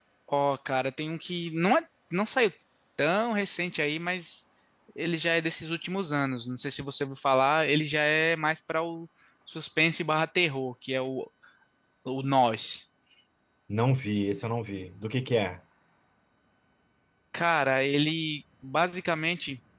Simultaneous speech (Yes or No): No